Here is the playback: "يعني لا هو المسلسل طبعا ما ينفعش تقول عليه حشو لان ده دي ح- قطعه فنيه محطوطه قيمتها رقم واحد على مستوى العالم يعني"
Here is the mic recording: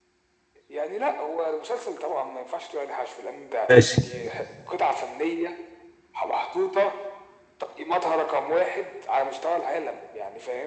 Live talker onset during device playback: 3.7 s

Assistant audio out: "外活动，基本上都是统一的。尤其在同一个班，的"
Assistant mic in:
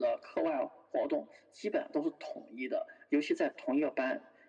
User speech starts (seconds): none

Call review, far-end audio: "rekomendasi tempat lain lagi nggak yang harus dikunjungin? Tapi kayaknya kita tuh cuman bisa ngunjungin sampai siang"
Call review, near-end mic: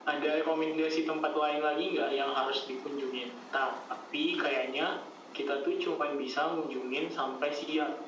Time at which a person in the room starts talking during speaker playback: none

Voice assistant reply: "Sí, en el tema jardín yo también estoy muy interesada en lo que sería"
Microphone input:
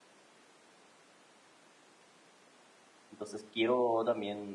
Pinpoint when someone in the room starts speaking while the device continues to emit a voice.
3.1 s

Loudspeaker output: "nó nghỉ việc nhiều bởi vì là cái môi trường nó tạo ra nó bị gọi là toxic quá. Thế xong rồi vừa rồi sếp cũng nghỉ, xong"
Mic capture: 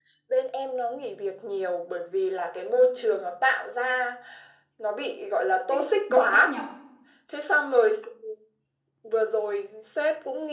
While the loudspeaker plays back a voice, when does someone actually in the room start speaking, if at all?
5.7 s

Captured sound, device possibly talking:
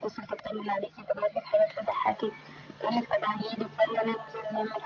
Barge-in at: none

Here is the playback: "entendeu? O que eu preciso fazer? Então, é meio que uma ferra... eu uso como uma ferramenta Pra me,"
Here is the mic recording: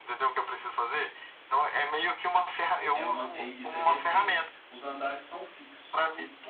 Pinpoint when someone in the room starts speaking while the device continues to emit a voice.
2.9 s

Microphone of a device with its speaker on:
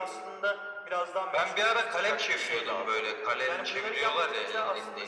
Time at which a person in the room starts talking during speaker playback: none

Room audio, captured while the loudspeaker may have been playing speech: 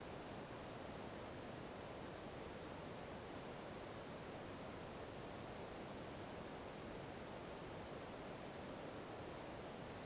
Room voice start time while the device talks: none

